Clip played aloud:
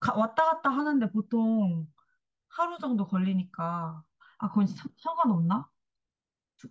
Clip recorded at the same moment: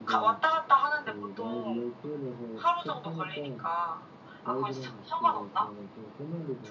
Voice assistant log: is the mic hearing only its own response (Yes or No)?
No